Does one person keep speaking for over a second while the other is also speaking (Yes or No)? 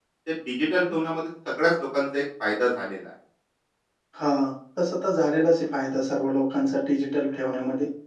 No